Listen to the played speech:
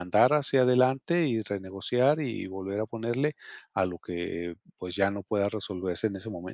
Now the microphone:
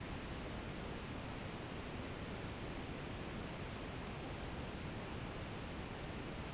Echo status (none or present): none